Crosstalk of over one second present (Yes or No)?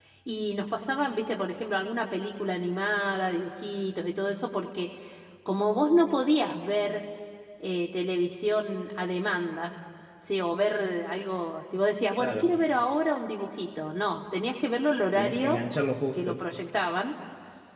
No